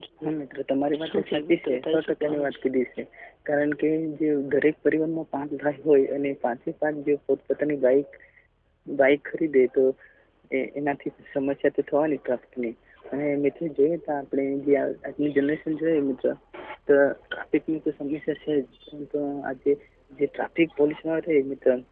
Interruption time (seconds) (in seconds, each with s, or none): 1.0 s